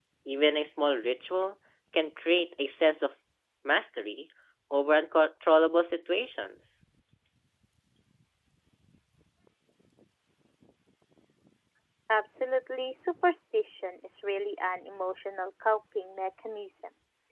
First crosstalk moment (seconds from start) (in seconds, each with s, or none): none